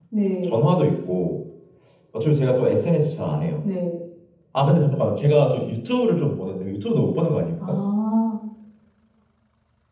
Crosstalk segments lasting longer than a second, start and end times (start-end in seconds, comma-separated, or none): none